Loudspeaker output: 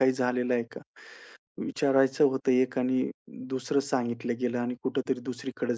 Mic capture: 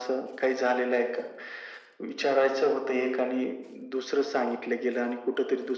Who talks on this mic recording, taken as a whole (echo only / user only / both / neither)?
echo only